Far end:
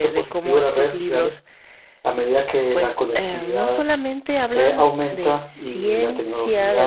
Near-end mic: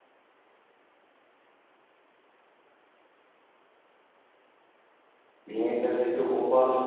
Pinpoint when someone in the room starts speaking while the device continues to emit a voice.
5.4 s

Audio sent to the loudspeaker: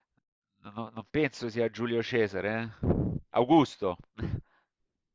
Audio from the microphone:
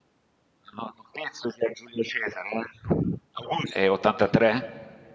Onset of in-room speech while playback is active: 3.7 s

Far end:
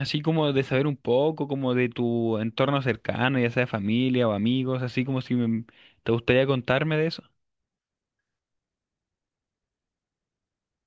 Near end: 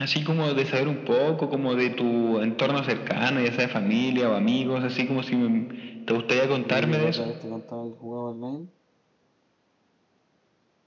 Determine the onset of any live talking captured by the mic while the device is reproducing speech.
6.6 s

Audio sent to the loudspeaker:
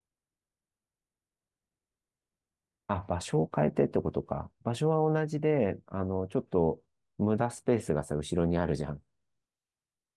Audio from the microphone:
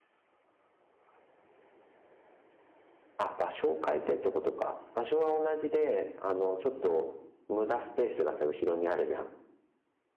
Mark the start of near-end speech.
none

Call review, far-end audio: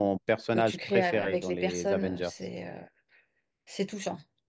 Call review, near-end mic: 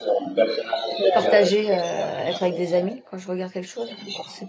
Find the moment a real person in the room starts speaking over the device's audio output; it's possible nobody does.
1.1 s

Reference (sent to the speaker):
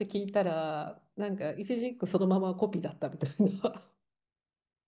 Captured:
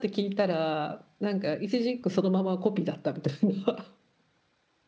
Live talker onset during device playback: none

